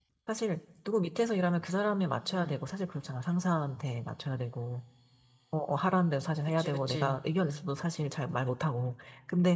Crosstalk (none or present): present